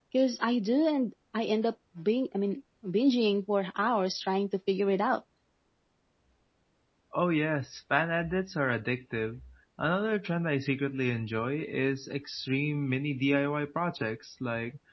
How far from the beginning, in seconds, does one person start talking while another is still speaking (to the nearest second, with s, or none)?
none